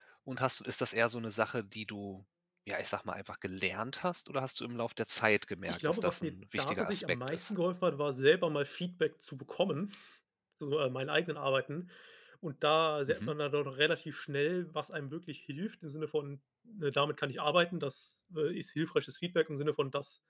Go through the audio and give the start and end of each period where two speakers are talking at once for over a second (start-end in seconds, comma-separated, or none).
5.7-7.5